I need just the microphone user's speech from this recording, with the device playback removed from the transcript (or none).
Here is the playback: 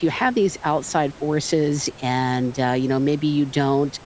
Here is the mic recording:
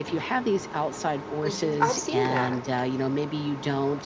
Mhm. I've seen that.